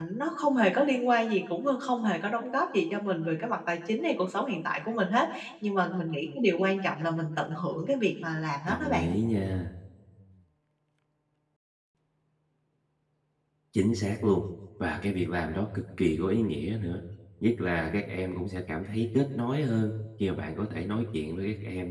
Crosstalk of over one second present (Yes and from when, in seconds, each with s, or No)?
No